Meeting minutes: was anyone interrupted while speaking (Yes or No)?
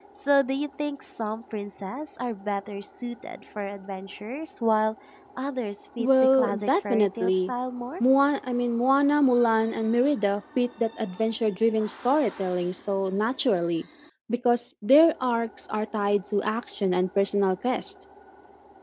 Yes